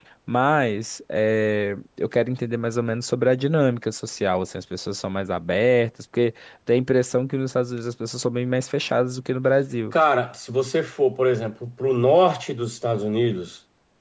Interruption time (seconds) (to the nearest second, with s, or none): none